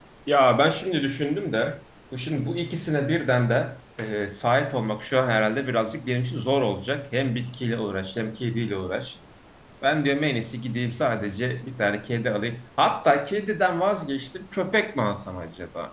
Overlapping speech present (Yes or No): No